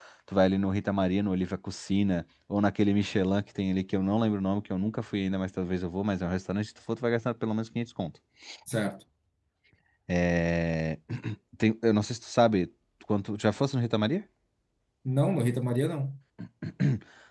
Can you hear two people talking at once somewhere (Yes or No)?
No